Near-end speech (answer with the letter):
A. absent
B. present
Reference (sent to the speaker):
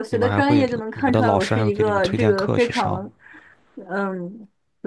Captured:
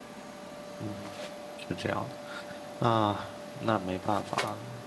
B